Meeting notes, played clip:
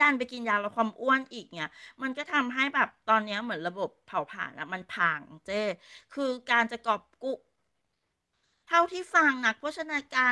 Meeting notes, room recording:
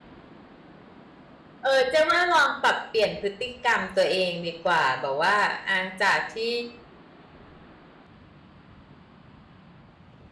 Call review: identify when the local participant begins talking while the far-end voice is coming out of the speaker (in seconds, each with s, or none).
1.6 s